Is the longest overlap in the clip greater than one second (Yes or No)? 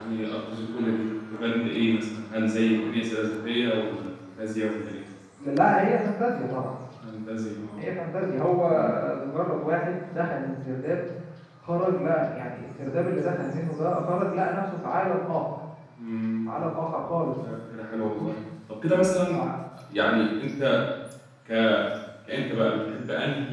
No